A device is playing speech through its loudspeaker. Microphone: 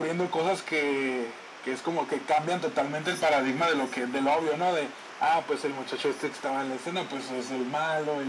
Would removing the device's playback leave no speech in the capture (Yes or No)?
Yes